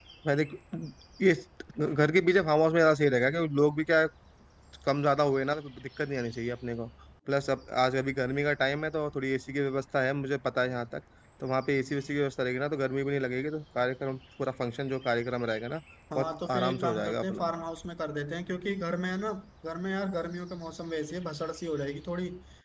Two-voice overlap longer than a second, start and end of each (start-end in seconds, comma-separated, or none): 16.1-17.5